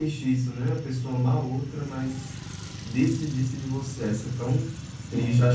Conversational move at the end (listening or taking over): listening